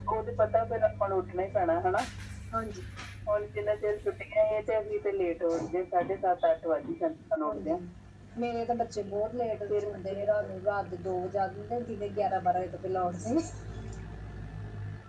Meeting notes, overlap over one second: none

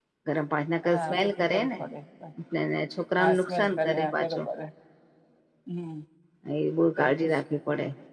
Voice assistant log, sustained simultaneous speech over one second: present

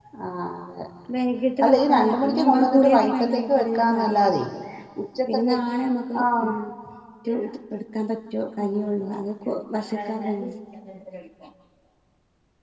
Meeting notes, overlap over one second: present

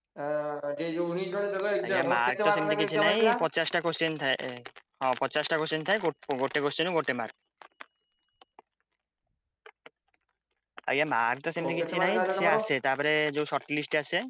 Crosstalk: present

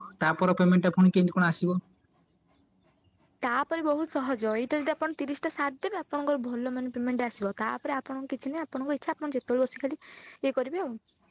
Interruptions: none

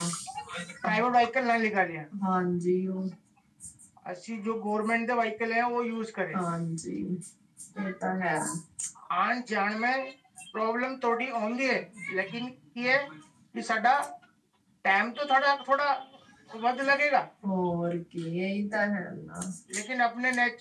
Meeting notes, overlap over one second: none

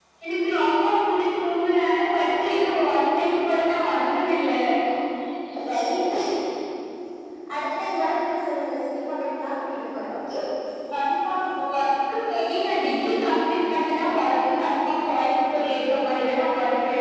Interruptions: none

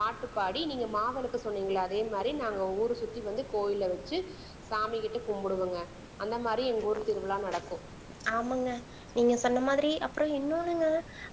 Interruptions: none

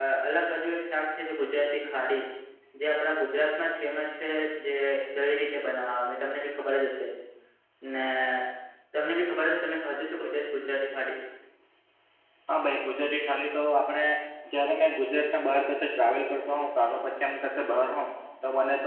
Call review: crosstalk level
none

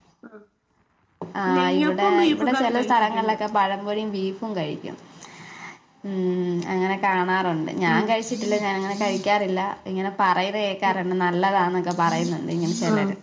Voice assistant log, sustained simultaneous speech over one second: present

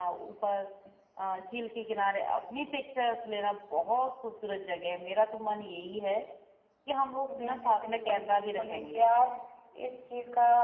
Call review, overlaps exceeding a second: present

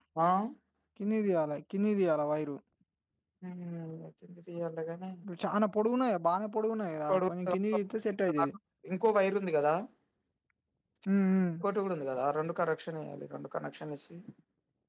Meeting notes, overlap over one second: none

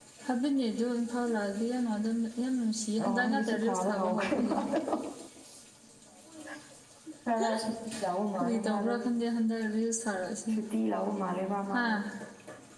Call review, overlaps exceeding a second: present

